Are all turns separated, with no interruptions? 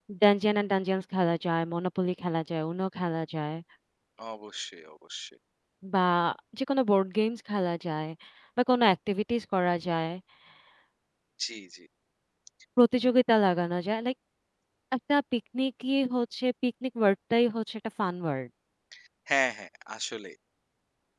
Yes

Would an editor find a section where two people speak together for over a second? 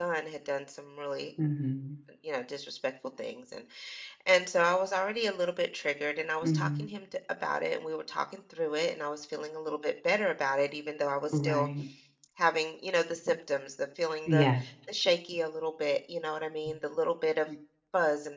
No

